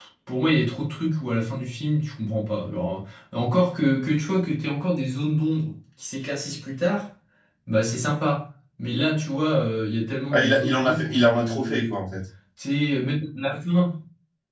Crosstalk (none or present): present